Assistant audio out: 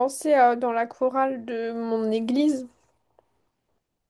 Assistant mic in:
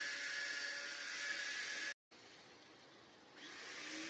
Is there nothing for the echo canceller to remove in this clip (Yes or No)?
Yes